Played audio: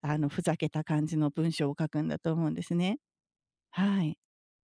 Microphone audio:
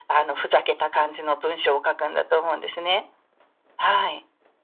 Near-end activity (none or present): none